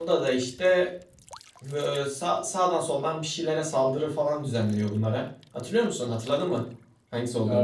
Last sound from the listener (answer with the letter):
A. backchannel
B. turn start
B